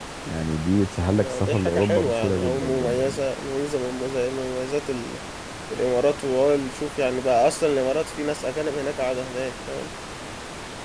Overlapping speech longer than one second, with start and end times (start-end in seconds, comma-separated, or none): 1.2-3.3